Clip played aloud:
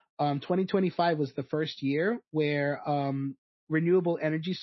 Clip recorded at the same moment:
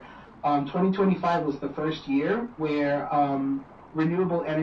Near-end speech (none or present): none